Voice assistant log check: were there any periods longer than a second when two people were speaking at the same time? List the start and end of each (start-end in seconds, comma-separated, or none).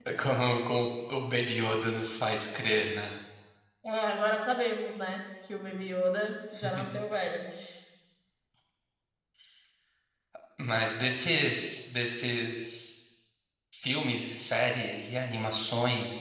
none